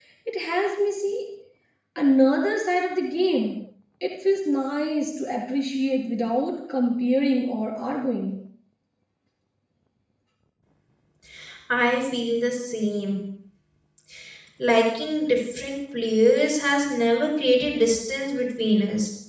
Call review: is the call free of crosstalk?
Yes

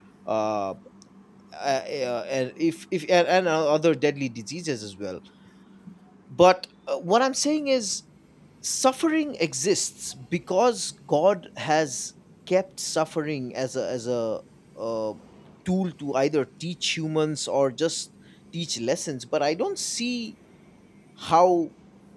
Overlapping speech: No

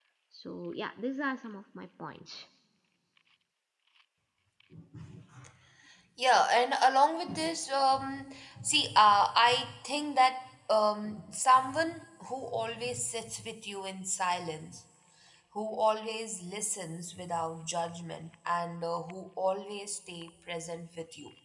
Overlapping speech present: No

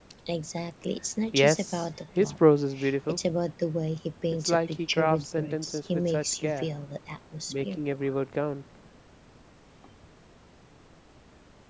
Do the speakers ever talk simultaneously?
Yes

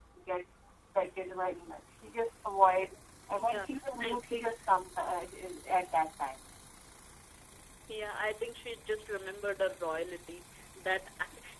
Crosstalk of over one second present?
No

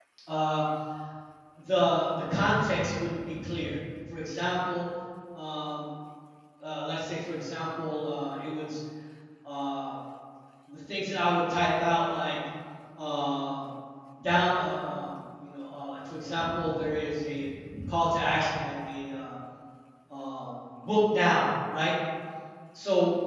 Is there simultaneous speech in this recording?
No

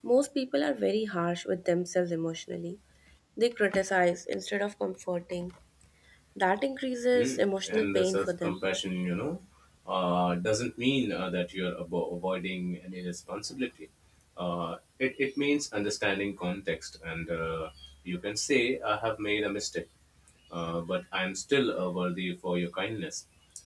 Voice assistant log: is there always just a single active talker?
No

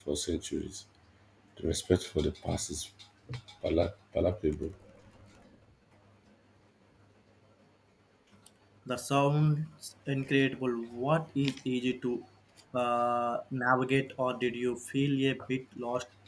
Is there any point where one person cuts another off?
No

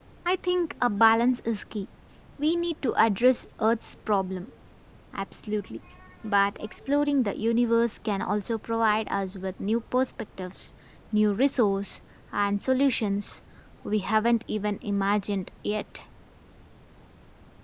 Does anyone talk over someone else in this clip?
No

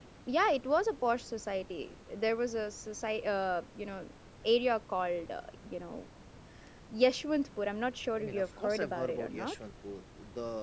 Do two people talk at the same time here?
Yes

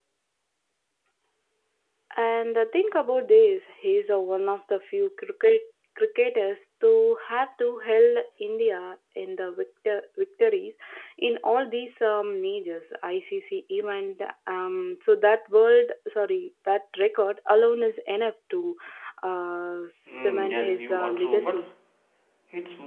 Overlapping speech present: Yes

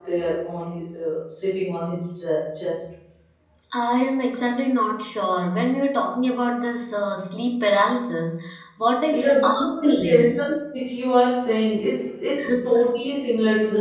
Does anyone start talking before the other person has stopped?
Yes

